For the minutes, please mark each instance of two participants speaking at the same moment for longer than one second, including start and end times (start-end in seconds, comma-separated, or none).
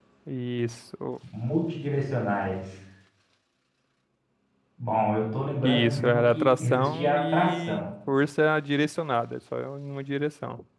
5.6-7.9